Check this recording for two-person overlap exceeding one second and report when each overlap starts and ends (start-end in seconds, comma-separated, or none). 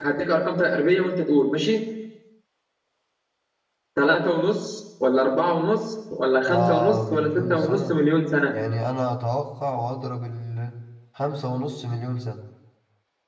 6.5-8.0